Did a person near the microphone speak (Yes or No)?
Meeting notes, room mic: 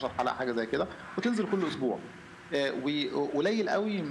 No